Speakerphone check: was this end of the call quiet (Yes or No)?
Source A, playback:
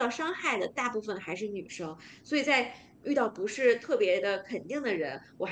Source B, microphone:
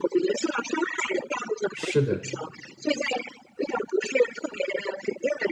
No